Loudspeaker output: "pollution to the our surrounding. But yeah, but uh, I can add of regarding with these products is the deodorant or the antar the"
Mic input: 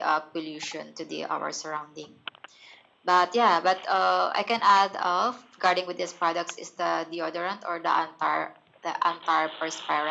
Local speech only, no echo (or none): none